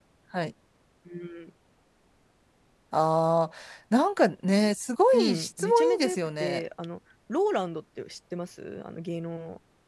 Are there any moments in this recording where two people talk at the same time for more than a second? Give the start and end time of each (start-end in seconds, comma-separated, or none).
5.1-6.6